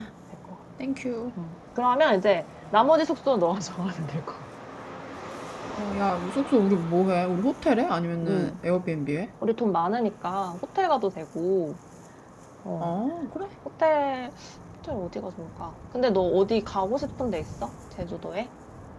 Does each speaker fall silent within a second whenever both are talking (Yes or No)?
Yes